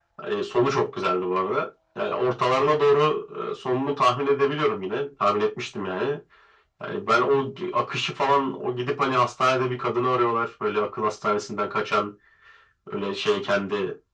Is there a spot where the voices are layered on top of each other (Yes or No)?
No